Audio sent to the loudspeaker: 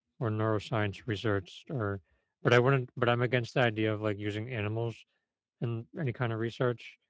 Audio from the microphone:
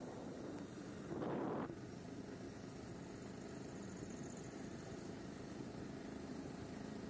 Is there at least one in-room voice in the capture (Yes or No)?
No